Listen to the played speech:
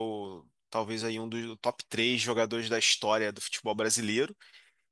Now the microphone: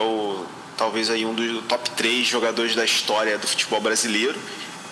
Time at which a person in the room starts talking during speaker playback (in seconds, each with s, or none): none